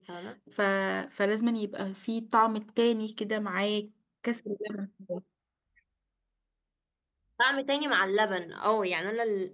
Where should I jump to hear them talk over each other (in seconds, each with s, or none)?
none